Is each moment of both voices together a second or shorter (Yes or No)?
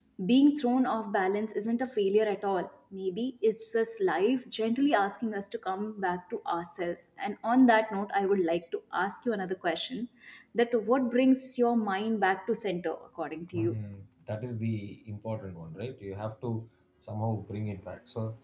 Yes